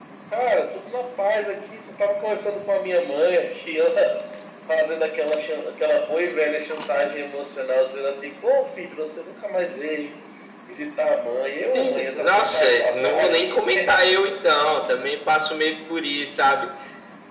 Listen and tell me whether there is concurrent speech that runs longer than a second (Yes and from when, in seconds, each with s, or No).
Yes, from 11.7 s